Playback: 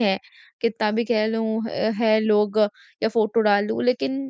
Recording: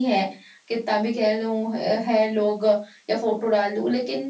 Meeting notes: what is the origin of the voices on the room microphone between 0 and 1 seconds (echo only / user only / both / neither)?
echo only